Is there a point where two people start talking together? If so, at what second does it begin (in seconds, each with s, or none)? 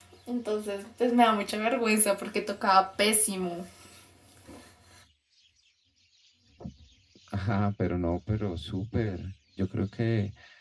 none